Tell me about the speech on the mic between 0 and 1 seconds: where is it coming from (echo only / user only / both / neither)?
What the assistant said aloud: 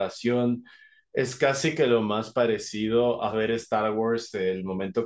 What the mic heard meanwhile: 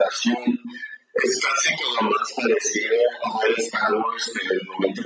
echo only